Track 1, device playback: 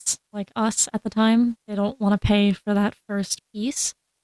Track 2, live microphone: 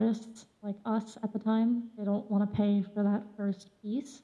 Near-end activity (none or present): none